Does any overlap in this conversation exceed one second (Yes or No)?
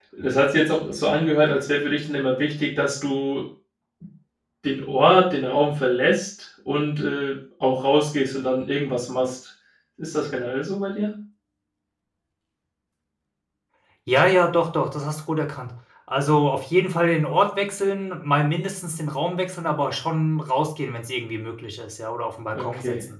No